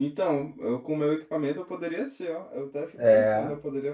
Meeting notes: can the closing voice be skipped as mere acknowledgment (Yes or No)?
Yes